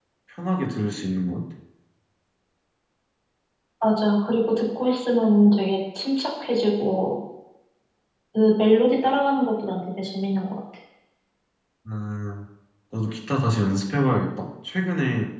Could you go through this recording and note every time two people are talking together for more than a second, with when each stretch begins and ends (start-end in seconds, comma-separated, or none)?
none